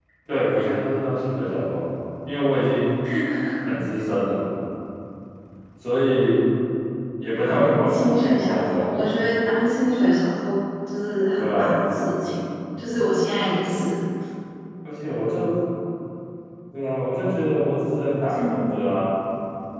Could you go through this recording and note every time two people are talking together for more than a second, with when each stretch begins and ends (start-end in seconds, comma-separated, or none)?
7.5-8.9